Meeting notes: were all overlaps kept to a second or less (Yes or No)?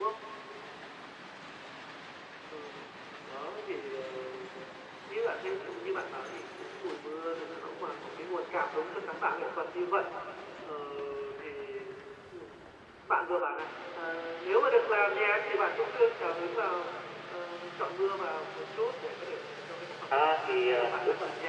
No